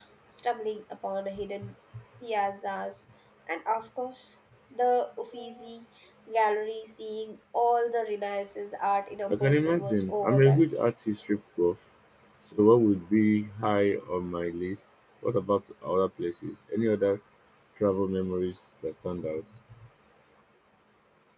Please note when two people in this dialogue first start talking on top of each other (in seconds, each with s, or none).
9.3 s